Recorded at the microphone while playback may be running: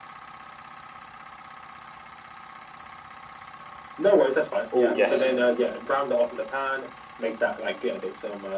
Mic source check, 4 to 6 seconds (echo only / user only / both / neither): both